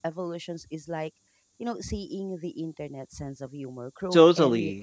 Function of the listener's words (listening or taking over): taking over